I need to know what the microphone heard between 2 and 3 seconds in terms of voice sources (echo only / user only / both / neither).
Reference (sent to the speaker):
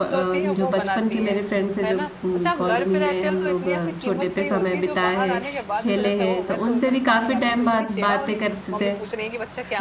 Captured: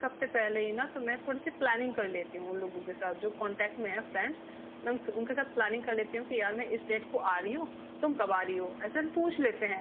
user only